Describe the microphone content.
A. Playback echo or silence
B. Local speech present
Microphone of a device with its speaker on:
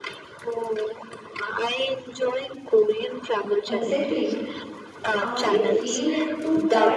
B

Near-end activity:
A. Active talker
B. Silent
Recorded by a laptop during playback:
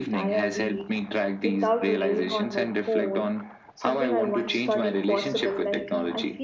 A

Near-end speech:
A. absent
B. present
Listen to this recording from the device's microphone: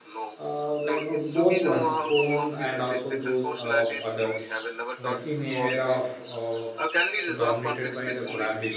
B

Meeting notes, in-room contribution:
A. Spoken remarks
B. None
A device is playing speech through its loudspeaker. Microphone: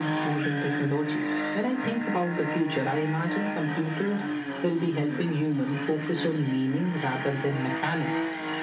B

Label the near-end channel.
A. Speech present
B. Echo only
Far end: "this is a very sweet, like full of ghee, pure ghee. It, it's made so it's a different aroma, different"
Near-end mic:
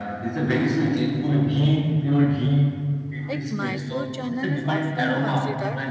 A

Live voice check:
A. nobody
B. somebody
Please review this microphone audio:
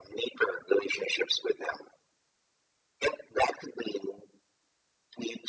A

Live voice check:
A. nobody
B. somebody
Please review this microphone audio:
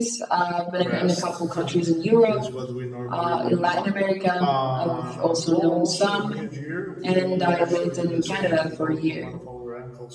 B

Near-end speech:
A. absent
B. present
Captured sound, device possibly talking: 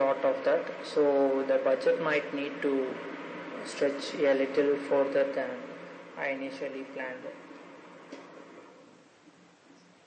A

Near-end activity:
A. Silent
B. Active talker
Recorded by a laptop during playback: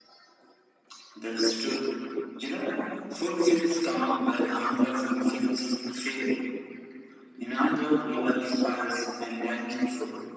A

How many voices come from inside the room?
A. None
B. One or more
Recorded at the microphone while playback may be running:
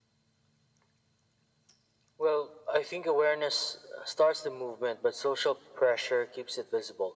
A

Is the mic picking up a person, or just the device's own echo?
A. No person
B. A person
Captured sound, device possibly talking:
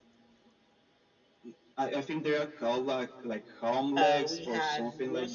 B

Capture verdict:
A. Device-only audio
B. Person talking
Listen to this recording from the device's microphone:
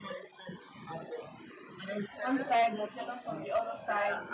B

